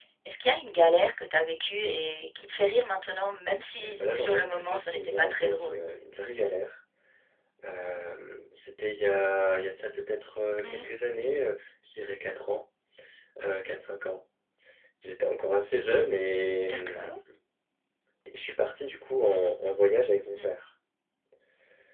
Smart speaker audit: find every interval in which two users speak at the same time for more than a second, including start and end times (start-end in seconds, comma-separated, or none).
3.8-5.8